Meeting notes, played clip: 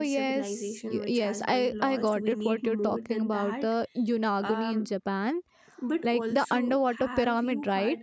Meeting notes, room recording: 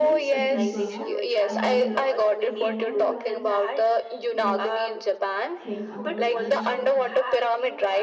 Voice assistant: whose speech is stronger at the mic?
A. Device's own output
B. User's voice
A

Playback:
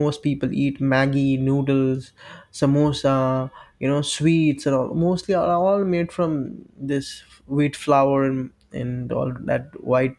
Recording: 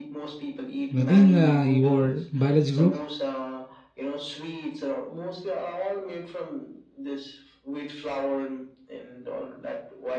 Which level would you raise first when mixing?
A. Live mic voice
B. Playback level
B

